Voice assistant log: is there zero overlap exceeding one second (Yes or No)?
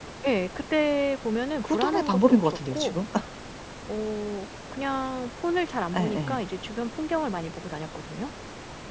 No